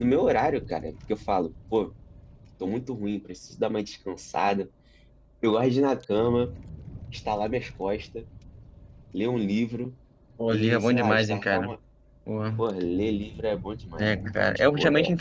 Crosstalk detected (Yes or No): Yes